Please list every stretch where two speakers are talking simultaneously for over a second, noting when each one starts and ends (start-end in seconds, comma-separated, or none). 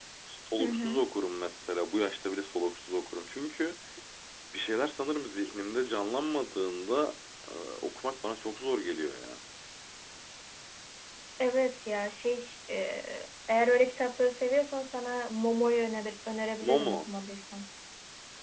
none